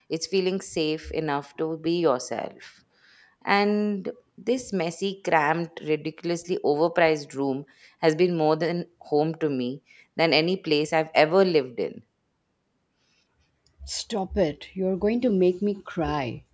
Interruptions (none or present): none